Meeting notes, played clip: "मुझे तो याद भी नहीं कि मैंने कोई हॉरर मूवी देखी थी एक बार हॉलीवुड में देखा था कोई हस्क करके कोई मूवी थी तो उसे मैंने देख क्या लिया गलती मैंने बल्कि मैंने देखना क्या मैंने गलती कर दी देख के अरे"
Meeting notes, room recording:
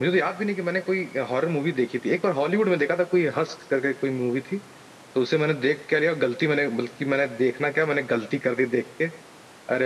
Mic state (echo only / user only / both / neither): echo only